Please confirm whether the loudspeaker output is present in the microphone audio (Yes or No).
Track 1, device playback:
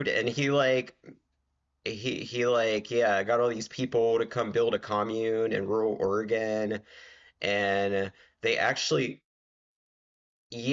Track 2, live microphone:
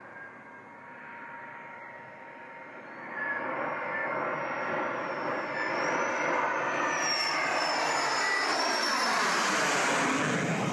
No